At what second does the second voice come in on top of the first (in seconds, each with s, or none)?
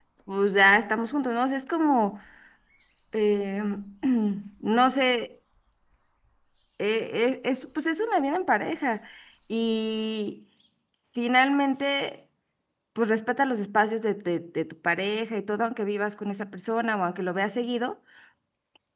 none